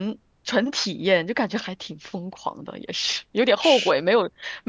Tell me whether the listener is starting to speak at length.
No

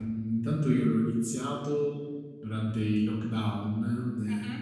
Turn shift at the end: No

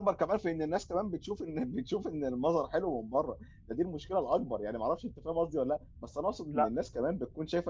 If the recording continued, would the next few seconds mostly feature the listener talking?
No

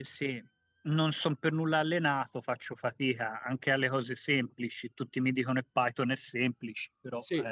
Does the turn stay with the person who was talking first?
No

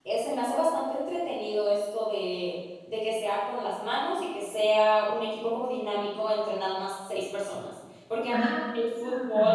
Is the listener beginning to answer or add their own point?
No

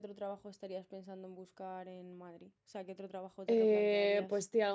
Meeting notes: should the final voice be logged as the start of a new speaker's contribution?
Yes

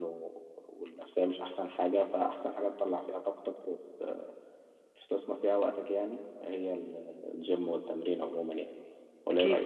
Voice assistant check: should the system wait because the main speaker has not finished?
No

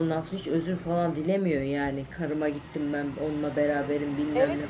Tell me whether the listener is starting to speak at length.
Yes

